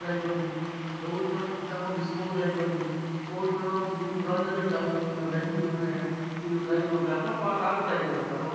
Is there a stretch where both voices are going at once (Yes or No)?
No